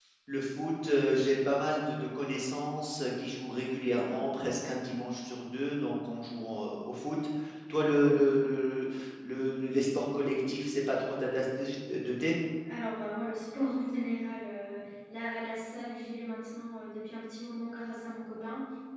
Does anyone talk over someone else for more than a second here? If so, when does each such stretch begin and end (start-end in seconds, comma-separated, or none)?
none